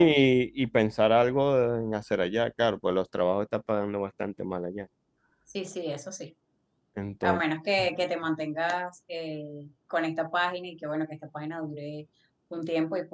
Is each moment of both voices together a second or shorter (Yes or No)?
Yes